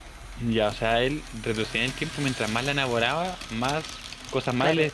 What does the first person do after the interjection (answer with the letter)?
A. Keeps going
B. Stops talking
B